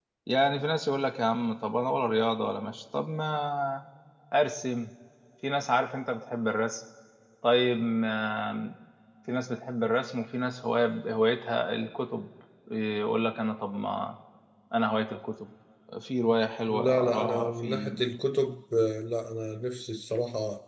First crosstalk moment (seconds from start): 16.7 s

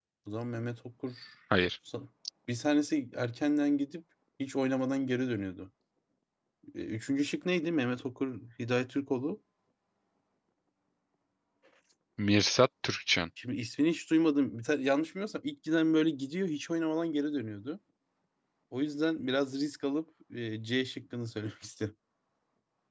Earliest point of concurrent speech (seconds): none

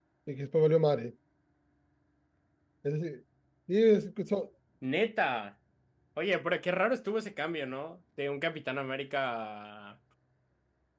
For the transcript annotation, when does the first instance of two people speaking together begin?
none

